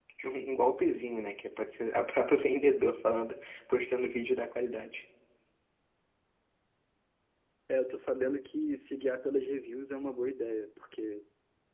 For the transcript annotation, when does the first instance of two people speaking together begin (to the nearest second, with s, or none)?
none